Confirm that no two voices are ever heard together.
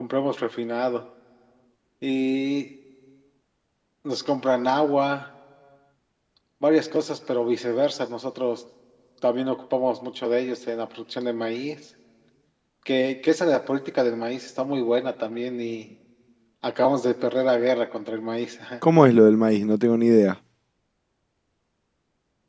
Yes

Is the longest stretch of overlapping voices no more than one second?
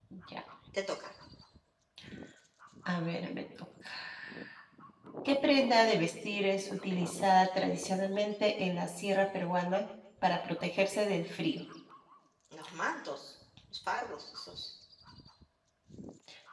Yes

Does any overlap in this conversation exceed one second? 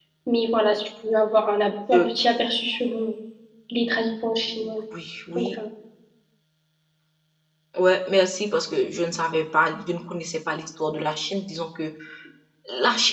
No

